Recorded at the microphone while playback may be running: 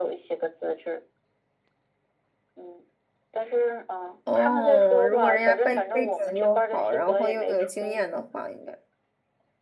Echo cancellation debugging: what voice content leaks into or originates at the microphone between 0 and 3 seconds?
echo only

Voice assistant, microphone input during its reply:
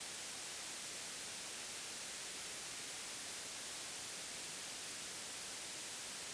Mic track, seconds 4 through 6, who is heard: neither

